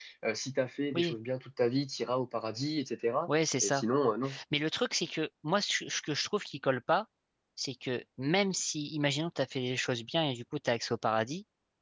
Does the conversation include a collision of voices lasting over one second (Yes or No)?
No